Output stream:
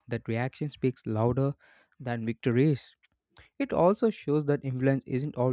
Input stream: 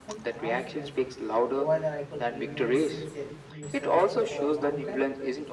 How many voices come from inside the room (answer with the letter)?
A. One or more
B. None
A